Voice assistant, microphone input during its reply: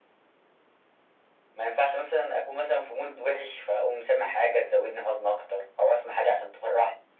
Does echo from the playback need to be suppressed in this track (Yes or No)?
Yes